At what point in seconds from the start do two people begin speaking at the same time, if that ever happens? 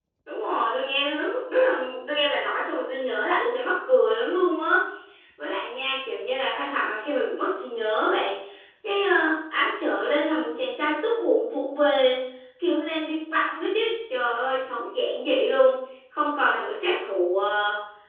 none

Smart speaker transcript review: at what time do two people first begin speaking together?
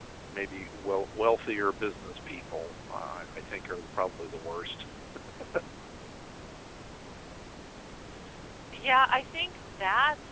none

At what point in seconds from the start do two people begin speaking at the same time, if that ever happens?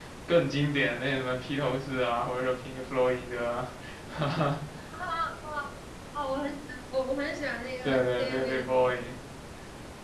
7.8 s

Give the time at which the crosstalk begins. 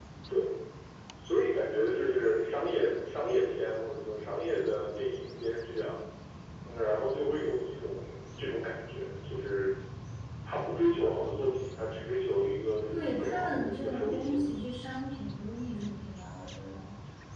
12.9 s

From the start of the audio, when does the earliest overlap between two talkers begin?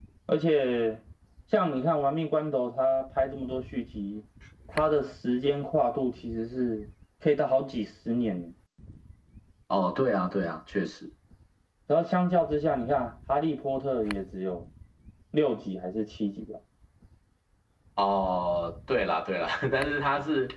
none

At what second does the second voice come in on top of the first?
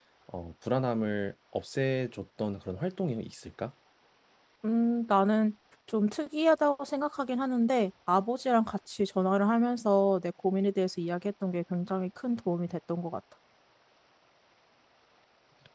none

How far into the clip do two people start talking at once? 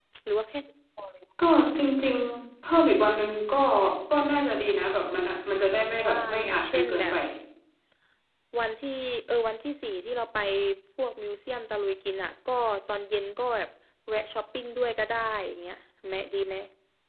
5.9 s

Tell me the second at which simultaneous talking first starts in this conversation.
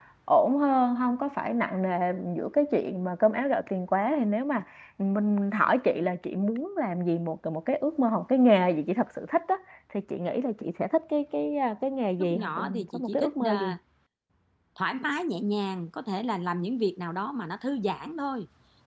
12.2 s

